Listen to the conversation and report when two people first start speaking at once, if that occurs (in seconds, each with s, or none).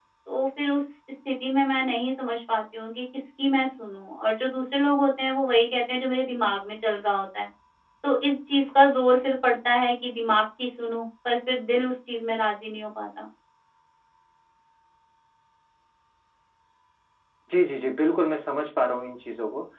none